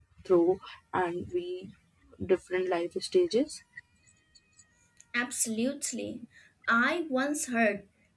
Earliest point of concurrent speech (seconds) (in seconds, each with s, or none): none